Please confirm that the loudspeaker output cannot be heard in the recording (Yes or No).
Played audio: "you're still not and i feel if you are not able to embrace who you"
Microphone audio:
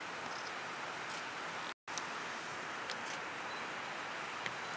Yes